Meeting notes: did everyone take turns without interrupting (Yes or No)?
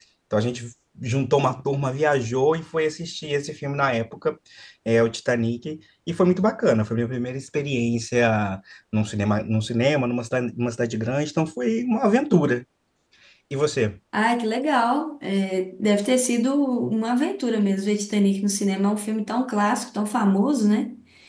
Yes